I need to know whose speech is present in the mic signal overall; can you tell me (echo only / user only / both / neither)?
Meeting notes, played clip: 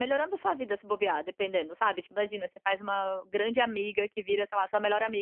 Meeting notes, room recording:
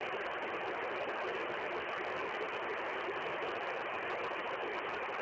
neither